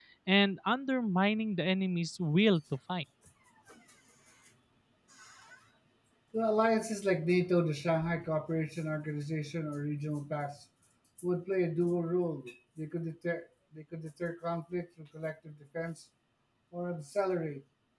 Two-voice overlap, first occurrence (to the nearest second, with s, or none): none